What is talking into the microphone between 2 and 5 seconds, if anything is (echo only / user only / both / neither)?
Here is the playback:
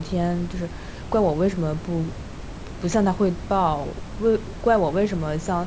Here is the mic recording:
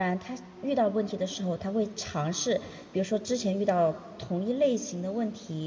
user only